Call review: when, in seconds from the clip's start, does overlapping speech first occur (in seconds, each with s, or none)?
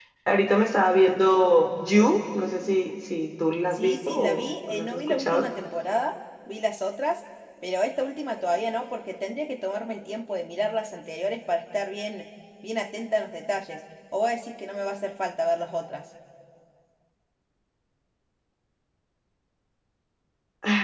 3.7 s